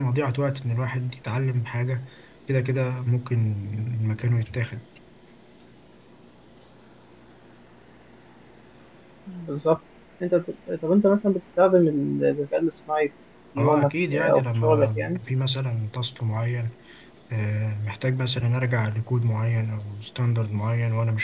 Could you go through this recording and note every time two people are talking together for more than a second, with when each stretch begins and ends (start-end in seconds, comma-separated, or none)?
13.6-15.2